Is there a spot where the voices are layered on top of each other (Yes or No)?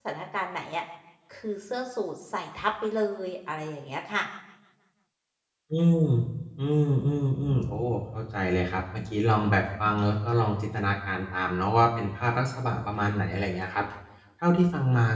No